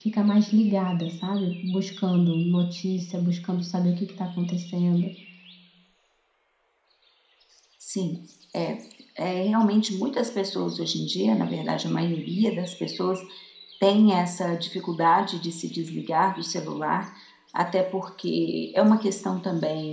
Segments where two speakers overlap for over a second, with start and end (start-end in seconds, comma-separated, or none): none